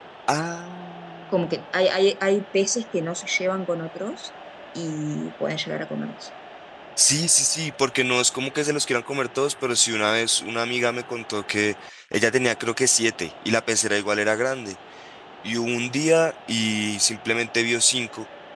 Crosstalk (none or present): none